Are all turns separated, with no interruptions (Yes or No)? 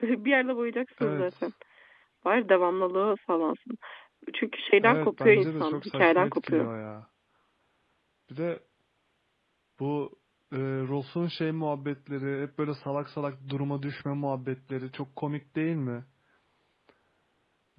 No